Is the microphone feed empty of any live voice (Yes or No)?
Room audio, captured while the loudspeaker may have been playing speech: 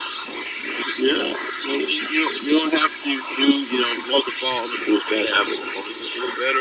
Yes